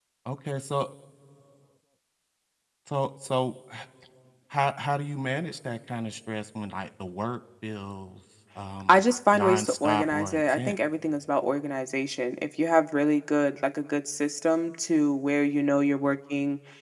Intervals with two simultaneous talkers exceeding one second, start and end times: 8.9-10.8

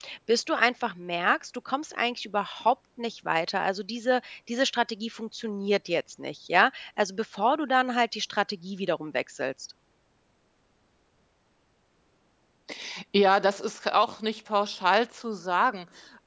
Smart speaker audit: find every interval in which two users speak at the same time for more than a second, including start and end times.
none

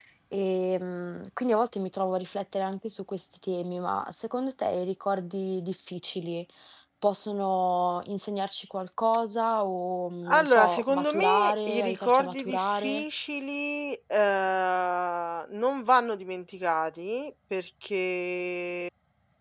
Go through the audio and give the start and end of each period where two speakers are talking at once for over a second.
10.3-13.0

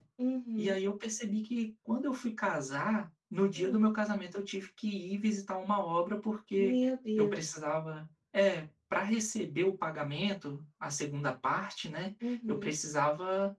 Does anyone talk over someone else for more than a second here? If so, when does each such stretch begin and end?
none

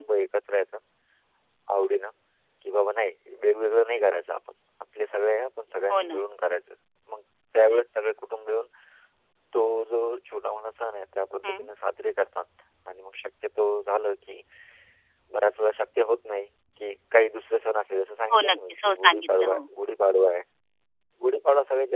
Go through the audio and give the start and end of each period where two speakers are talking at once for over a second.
18.3-19.6

